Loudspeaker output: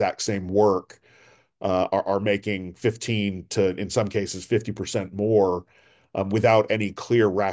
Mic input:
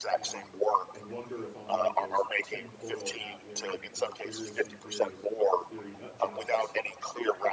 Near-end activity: present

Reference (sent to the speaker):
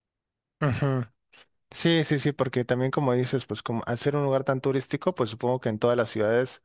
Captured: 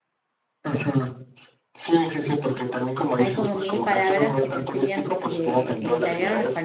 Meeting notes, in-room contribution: present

